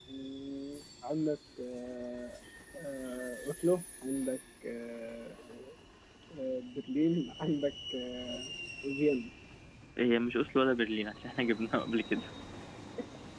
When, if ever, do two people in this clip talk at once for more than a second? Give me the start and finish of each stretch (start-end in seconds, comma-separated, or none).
none